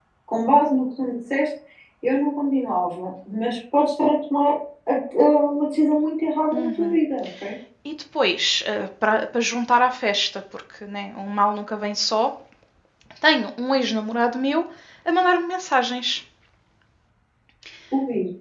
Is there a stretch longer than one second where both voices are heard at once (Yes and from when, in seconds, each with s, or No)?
No